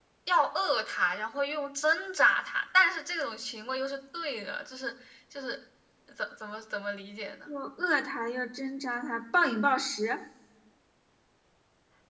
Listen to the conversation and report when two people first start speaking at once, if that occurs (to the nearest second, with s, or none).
none